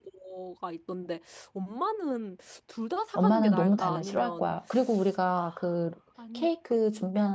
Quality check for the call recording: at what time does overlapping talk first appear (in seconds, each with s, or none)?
3.1 s